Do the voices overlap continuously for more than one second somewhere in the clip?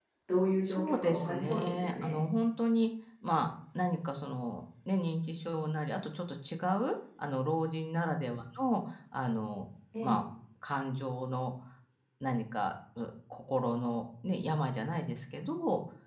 Yes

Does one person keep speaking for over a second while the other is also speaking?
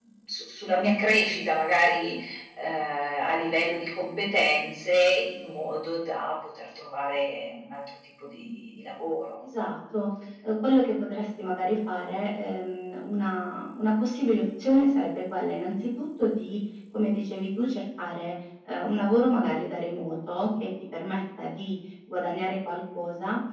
No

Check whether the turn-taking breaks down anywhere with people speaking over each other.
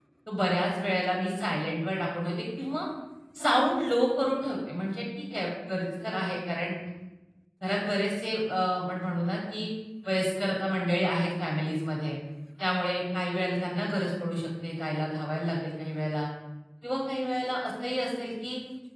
No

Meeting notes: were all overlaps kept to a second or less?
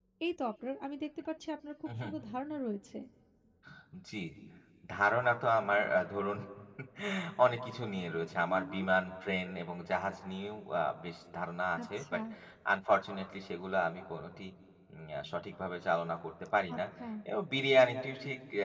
Yes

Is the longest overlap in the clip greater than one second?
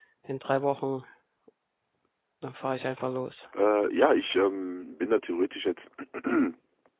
No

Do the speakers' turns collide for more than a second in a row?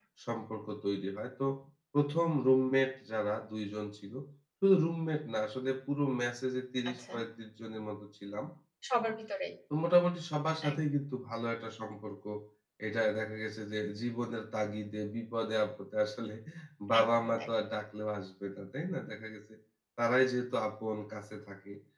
No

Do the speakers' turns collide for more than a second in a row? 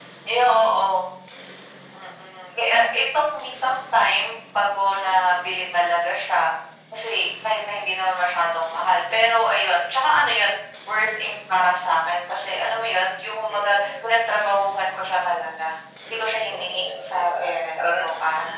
Yes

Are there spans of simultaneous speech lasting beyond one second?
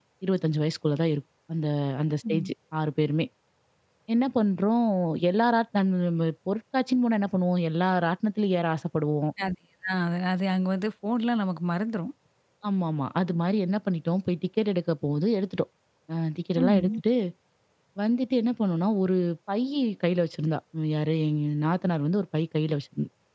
No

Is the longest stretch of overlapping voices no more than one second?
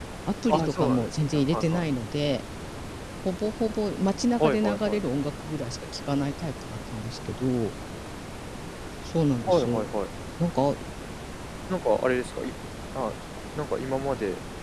No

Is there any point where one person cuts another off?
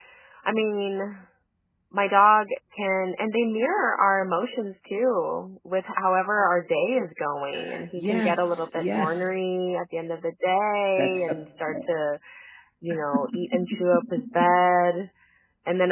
Yes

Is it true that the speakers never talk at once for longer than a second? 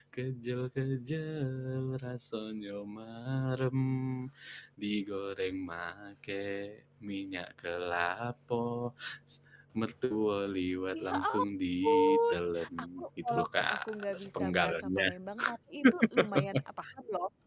No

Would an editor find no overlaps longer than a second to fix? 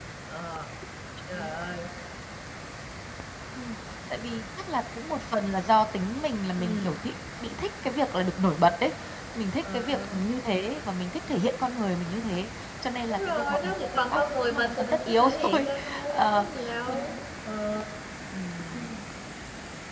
No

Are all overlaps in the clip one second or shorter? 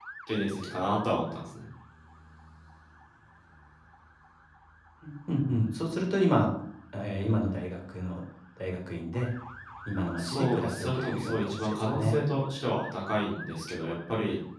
No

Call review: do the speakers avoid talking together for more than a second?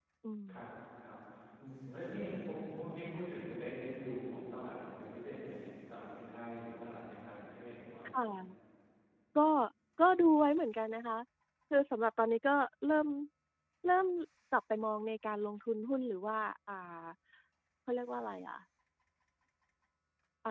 Yes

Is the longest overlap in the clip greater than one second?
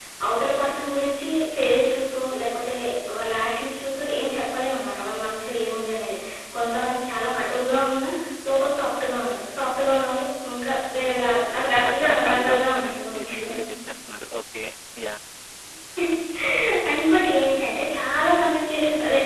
Yes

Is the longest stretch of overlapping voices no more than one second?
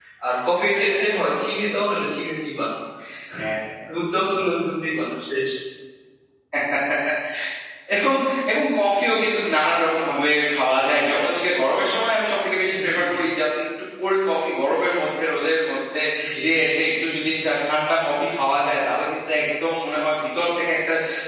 Yes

